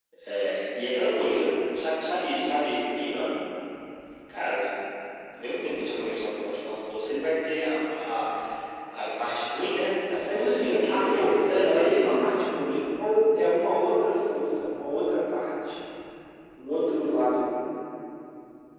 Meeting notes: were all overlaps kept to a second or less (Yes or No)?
No